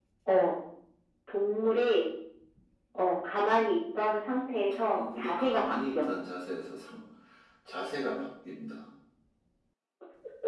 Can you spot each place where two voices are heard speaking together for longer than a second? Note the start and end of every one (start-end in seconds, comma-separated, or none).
4.8-6.1